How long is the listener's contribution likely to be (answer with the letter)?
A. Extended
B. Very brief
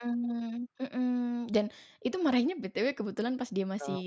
B